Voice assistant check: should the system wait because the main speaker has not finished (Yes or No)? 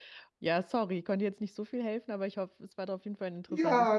No